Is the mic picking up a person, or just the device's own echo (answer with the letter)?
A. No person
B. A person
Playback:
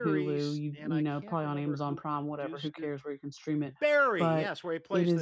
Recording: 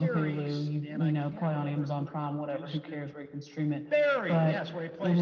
A